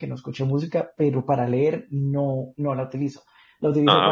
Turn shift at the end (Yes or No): No